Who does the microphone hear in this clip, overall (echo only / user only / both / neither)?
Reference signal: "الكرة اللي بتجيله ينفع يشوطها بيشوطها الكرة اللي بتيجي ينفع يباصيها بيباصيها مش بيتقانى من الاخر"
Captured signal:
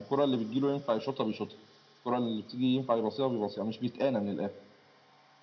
echo only